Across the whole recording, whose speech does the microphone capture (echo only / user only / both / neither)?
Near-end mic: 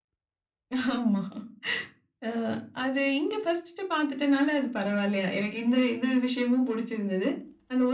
echo only